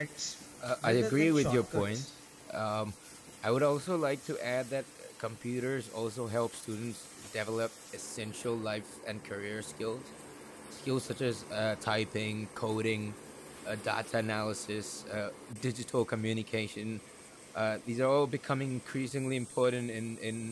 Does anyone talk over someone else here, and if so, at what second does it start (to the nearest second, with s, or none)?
1 s